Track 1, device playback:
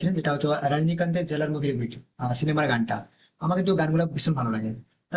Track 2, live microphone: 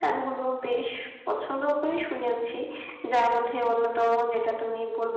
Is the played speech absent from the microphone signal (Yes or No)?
Yes